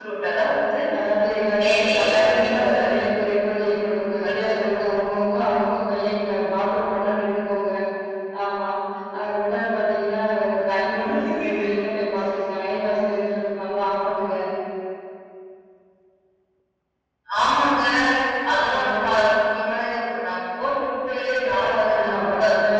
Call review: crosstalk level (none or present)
present